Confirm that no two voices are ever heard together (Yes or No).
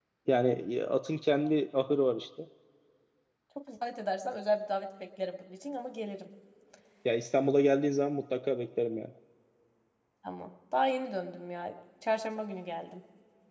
Yes